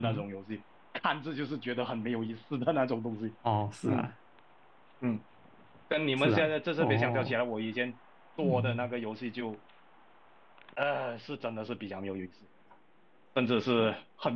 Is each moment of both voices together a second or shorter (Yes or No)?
No